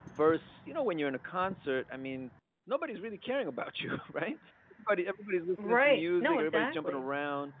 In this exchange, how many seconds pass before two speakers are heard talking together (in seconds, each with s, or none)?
5.6 s